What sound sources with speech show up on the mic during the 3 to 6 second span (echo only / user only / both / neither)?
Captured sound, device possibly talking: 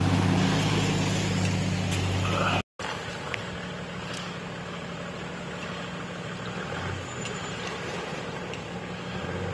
neither